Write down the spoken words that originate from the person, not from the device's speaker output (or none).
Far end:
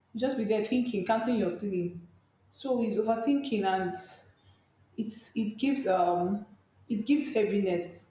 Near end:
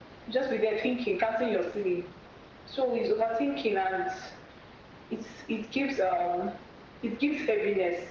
none